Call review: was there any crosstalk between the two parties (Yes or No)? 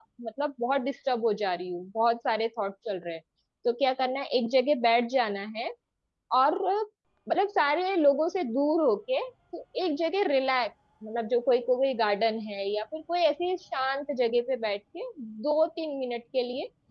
No